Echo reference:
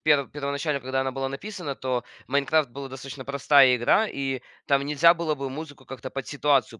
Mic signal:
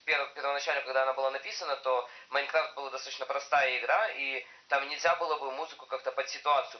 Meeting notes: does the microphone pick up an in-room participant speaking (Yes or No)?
No